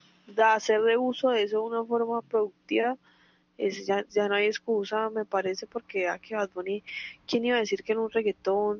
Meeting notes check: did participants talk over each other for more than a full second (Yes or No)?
No